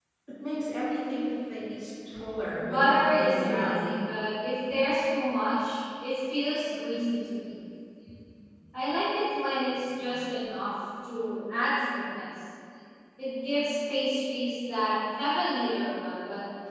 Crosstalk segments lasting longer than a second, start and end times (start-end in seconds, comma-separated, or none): 2.6-3.9